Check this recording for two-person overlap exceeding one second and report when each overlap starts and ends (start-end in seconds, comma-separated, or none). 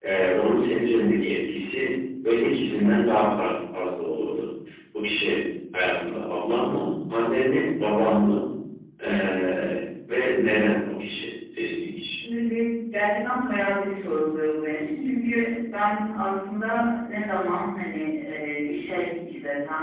none